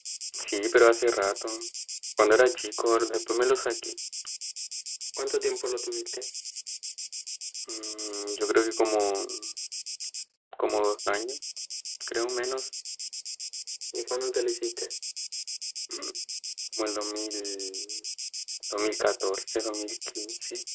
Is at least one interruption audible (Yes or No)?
No